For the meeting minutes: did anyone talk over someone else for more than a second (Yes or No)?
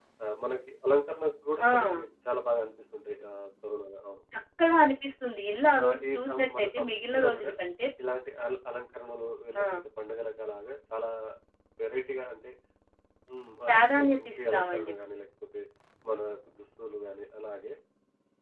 Yes